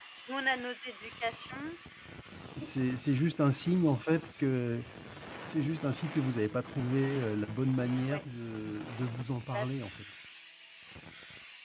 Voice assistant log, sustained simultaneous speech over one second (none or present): none